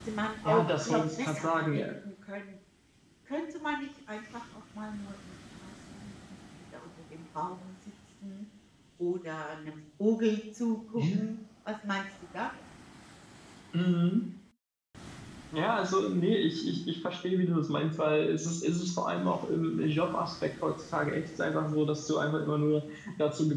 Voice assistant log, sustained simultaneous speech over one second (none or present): present